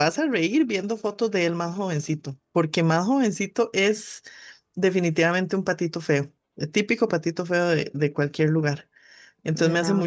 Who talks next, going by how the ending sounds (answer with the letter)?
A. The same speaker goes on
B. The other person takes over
A